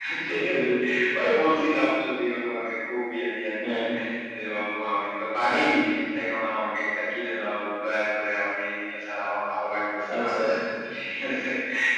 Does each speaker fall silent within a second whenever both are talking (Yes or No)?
Yes